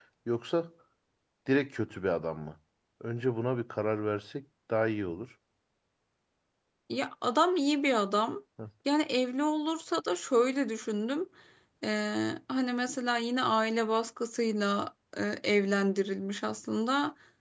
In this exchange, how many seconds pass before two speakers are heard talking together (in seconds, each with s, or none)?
none